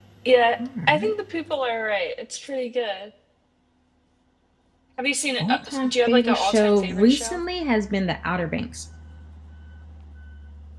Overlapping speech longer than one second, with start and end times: 5.4-7.4

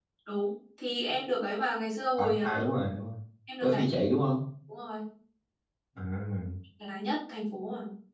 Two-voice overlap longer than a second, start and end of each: none

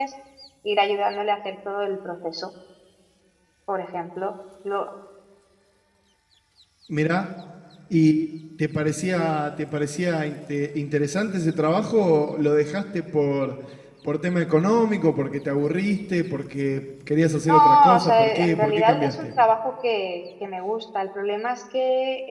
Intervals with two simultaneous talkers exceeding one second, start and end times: 17.5-19.3

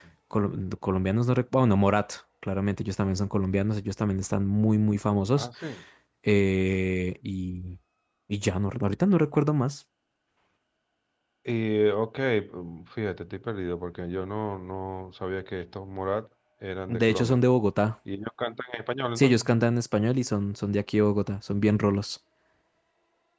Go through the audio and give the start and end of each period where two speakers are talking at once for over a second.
none

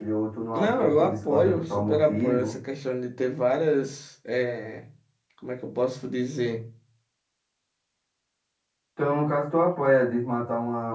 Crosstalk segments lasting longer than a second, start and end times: 0.6-2.5

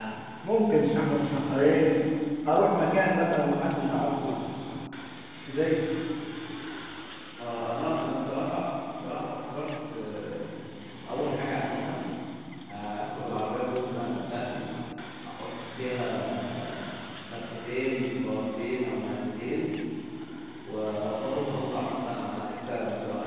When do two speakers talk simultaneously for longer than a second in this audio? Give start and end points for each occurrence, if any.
none

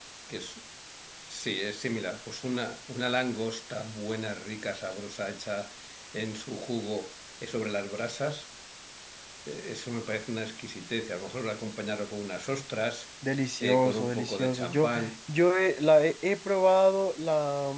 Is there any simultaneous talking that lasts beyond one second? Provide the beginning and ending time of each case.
13.6-15.1

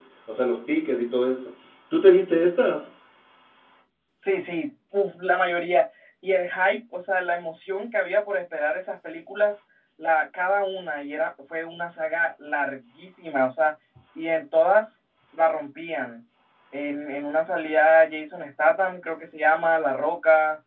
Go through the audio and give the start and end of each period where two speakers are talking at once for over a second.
none

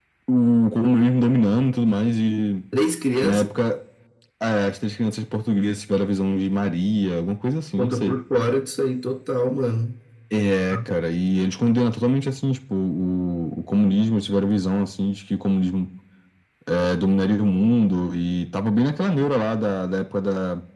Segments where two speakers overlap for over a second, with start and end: none

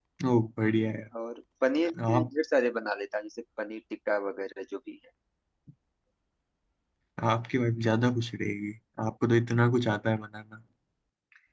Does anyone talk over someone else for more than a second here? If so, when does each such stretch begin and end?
none

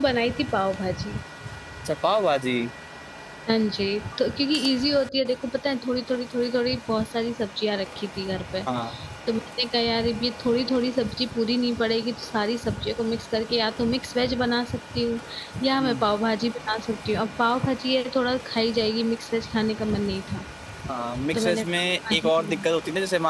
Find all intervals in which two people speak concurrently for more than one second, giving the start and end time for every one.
21.3-22.6

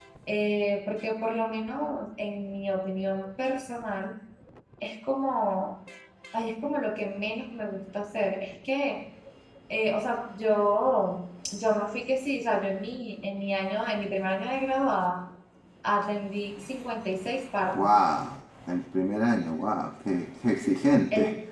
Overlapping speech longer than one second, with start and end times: none

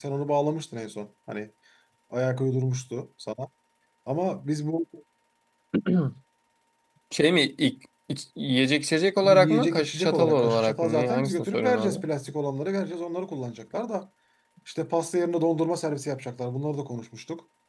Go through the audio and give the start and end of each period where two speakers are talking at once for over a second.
9.2-12.0

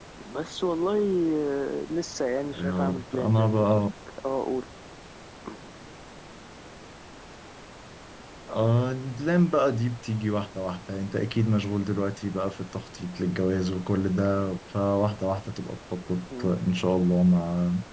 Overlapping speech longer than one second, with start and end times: 2.4-3.9

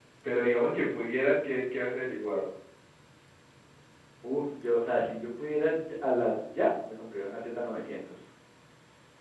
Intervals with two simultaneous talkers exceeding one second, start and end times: none

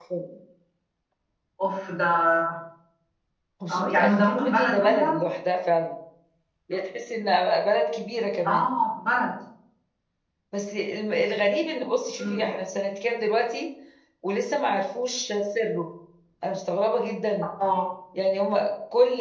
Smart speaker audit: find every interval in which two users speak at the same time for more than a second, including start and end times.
3.7-5.2

